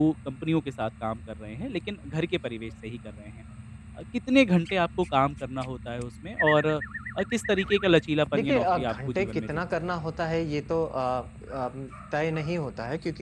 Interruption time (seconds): 8.3 s

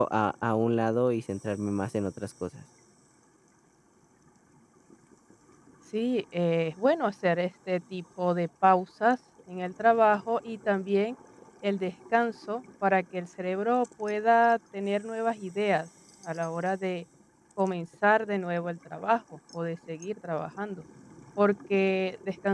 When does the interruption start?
none

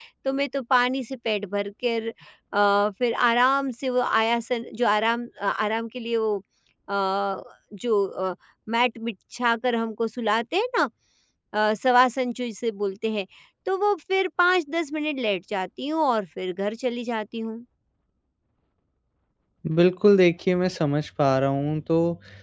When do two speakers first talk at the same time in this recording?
none

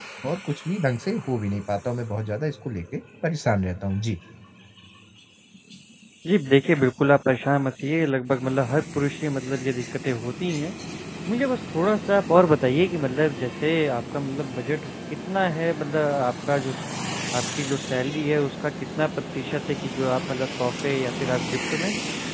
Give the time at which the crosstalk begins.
none

